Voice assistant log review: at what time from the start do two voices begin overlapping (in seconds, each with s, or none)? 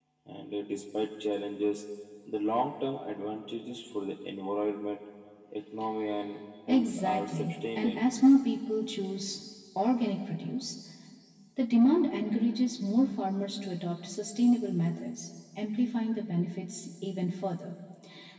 6.7 s